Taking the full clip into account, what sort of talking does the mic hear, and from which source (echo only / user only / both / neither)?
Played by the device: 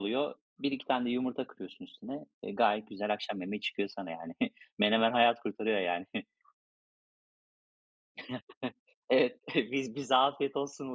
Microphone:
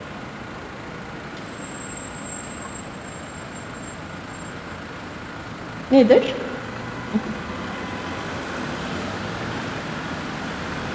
user only